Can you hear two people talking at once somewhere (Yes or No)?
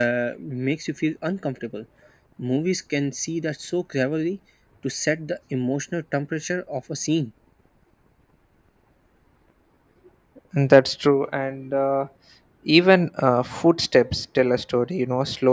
No